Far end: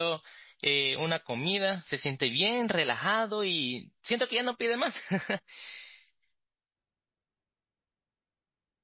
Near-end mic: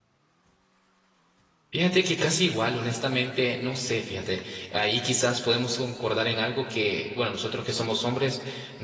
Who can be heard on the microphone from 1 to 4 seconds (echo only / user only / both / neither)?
user only